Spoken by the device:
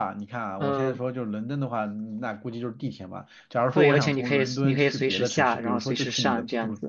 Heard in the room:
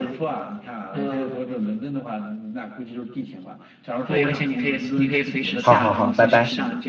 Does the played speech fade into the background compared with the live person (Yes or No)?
Yes